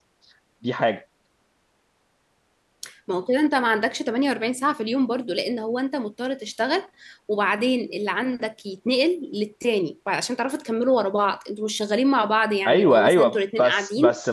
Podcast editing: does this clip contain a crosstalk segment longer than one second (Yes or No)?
Yes